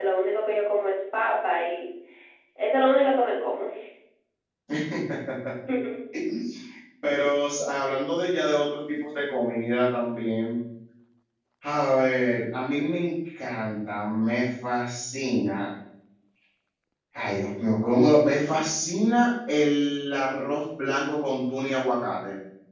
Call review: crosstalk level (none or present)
none